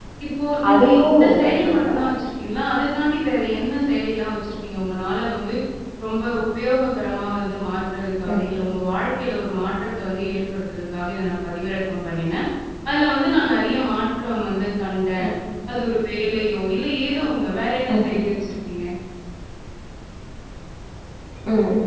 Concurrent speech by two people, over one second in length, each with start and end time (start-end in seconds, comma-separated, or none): 0.7-2.0